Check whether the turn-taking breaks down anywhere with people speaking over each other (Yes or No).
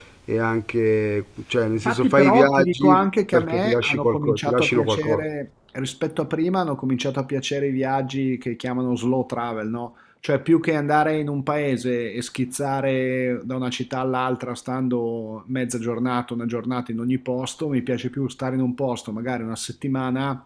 Yes